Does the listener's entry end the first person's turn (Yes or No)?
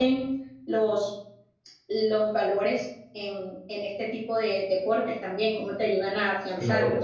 Yes